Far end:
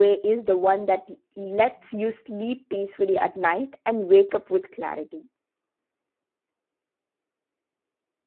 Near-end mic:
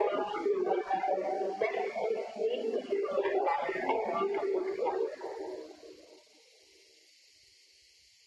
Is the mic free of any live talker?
Yes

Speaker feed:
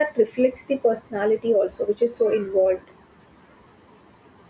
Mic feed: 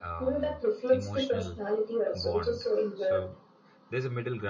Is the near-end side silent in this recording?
No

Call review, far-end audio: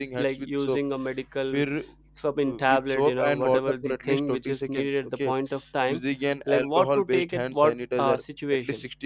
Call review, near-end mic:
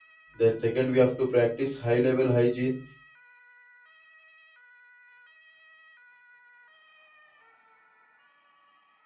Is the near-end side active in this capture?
Yes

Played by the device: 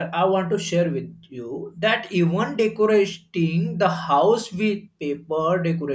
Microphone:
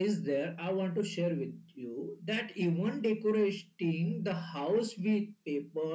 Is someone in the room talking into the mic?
No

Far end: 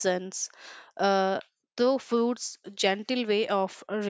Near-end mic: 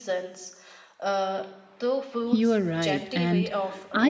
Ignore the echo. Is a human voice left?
Yes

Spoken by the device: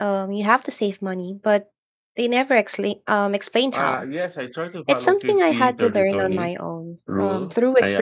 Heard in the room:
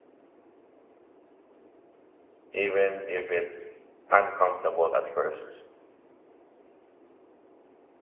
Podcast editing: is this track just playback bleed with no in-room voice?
No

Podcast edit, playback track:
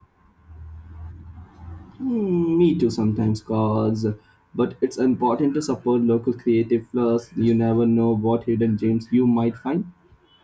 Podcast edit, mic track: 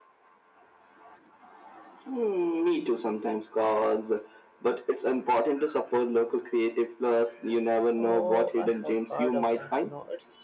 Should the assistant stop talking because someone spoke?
Yes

